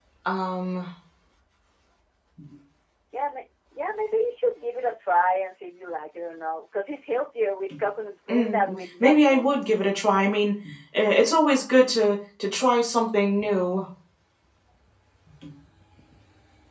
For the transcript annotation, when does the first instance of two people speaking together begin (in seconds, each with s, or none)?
8.3 s